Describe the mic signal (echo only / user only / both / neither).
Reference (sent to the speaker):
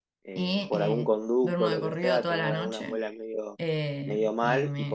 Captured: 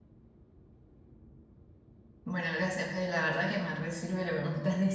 user only